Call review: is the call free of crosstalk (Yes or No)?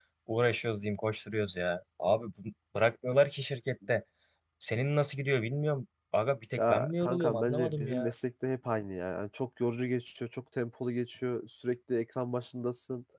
No